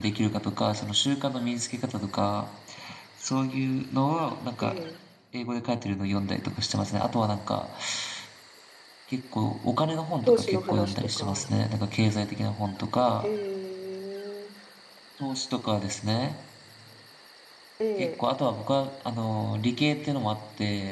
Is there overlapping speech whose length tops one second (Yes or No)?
Yes